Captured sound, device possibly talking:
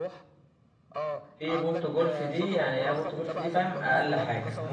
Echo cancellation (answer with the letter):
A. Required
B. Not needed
A